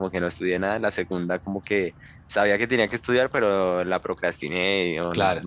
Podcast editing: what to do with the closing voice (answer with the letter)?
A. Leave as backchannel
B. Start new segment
A